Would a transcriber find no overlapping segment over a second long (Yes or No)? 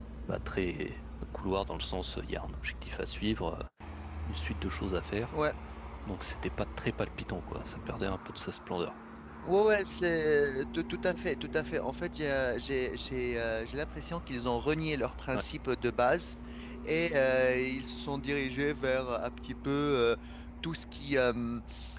Yes